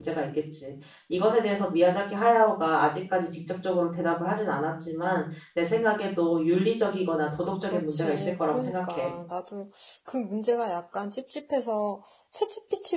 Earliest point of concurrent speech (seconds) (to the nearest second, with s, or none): 8 s